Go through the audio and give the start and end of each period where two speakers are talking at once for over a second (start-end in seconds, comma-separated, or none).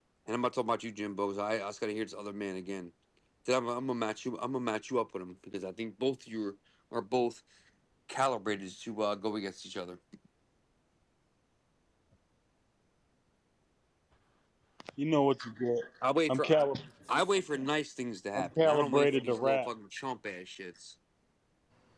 18.4-19.7